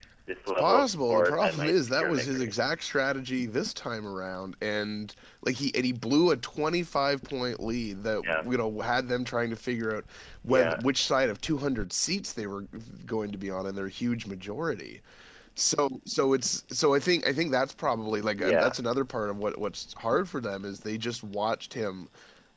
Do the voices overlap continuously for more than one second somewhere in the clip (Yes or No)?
Yes